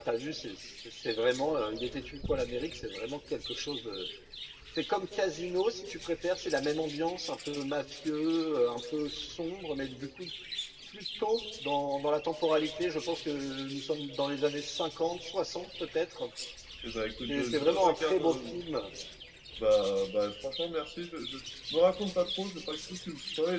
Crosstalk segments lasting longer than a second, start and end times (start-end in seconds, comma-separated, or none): 17.3-18.5